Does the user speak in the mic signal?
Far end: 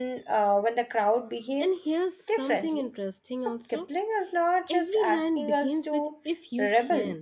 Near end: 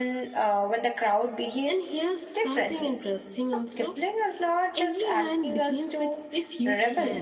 No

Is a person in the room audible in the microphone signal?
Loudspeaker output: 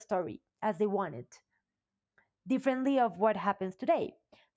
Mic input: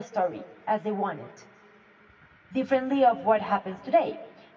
No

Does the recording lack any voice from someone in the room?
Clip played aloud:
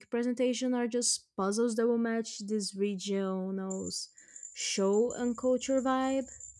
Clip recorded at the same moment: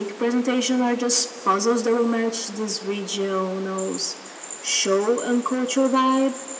Yes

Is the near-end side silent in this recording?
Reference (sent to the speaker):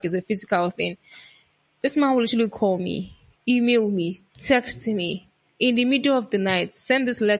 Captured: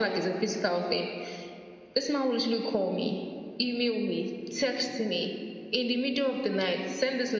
Yes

